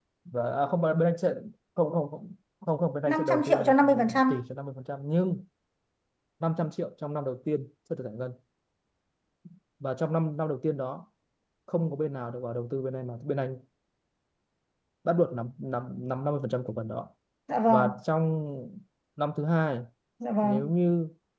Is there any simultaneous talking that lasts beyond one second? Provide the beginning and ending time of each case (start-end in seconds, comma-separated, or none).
3.1-4.3